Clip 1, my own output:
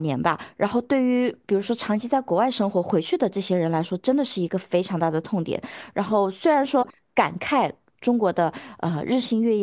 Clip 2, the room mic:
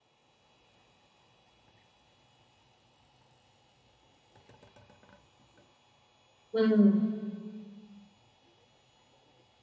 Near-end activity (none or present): present